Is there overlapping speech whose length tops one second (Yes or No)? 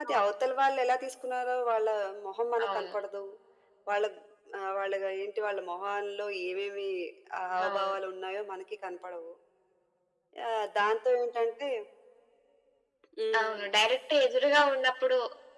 No